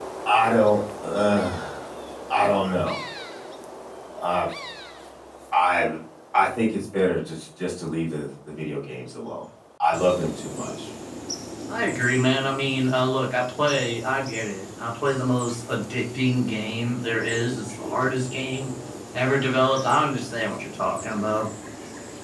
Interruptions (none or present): none